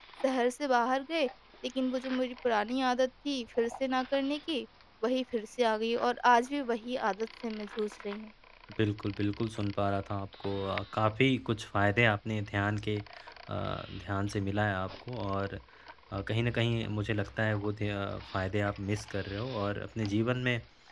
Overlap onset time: none

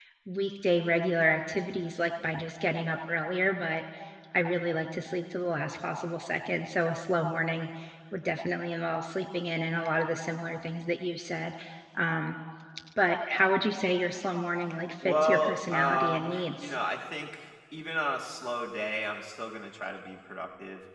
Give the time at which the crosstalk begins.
15.0 s

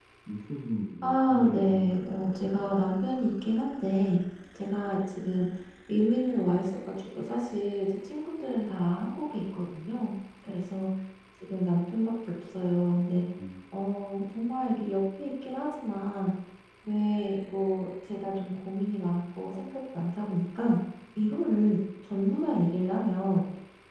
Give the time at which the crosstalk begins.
1.0 s

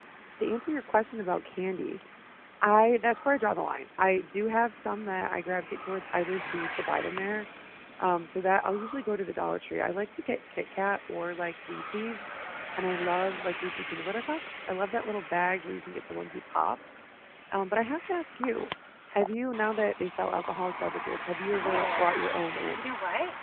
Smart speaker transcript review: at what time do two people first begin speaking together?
21.5 s

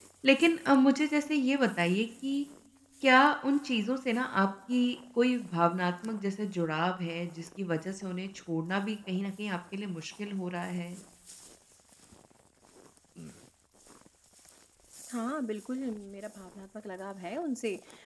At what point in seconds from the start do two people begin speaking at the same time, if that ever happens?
none

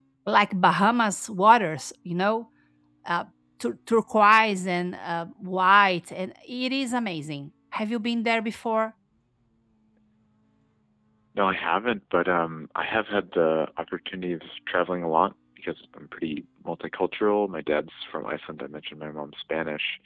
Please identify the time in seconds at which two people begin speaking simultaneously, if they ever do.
none

